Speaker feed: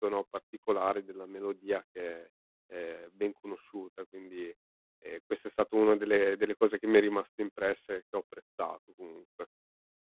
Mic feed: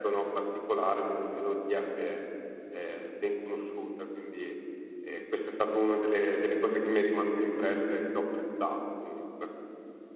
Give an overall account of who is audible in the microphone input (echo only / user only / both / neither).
echo only